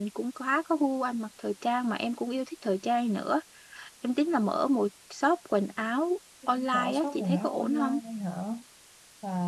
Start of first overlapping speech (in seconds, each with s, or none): 6.5 s